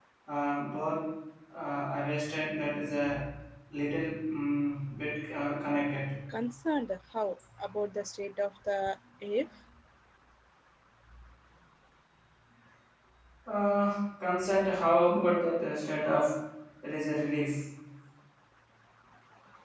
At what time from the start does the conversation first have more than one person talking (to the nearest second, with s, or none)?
none